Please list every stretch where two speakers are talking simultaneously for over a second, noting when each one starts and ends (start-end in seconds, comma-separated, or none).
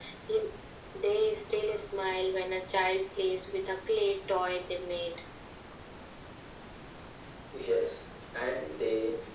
none